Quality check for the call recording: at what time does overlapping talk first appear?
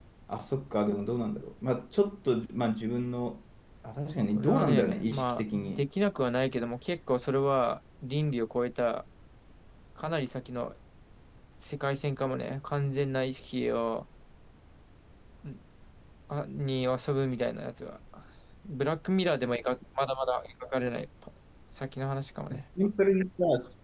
4 s

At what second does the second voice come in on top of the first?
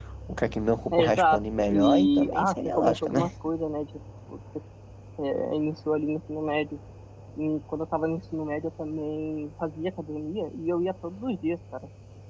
1 s

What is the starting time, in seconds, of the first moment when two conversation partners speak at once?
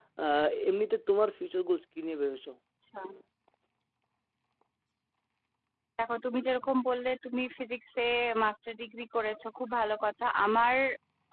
none

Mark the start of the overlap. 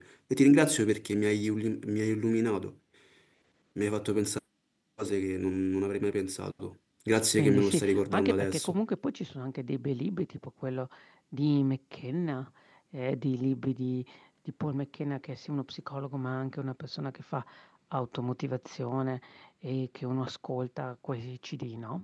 7 s

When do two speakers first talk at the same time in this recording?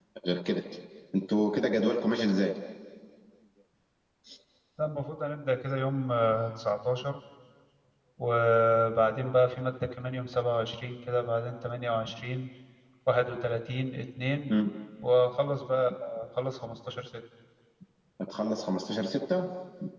none

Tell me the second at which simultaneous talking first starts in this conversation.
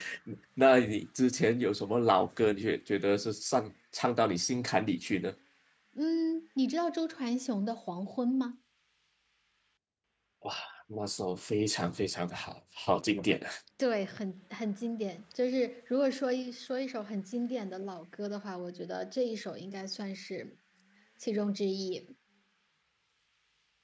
none

